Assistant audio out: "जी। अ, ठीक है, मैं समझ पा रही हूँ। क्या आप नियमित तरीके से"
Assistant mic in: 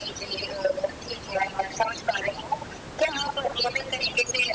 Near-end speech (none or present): none